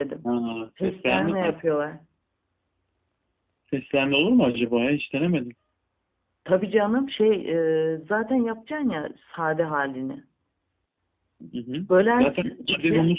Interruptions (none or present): present